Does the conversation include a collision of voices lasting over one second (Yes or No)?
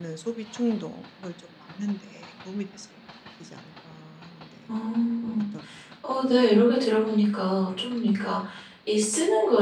No